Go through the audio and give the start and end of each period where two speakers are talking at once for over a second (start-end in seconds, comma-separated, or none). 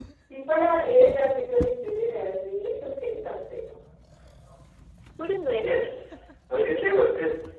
none